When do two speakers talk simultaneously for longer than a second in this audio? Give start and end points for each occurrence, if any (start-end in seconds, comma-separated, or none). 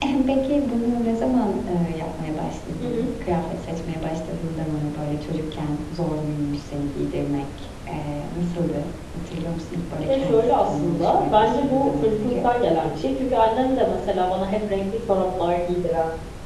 10.1-12.3